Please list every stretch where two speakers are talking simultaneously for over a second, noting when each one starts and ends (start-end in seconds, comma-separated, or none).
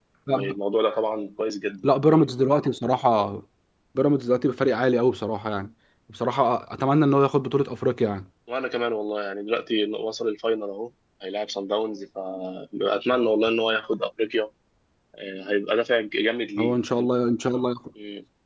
none